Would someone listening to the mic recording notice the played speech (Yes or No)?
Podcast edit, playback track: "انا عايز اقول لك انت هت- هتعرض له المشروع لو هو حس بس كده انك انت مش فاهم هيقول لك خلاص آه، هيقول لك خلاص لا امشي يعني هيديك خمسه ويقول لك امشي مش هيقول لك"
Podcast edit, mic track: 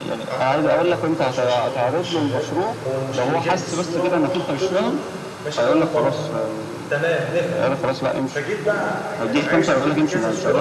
Yes